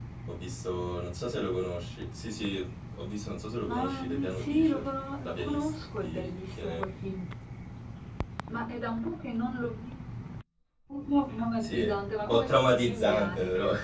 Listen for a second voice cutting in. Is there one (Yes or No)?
Yes